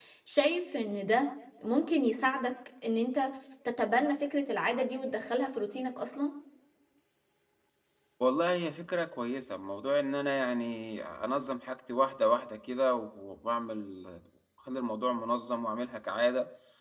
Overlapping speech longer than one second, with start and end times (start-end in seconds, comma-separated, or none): none